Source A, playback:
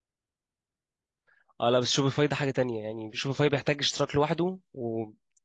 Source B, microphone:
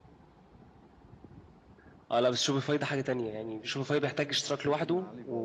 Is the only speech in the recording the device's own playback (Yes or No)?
No